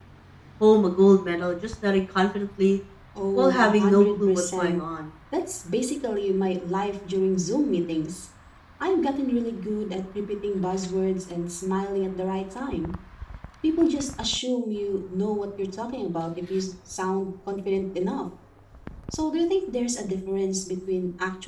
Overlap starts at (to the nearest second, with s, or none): 3 s